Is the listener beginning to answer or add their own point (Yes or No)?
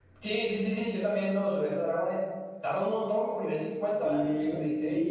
Yes